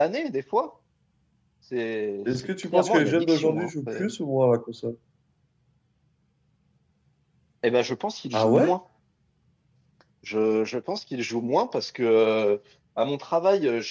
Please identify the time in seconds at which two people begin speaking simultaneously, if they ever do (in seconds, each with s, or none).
2.3 s